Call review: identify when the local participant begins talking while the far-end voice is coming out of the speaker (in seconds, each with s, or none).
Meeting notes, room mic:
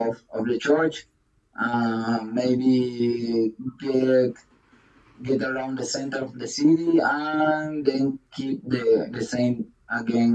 none